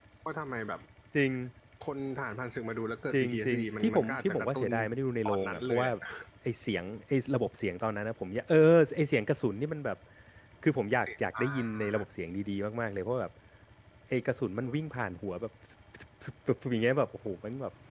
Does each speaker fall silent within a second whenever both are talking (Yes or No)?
No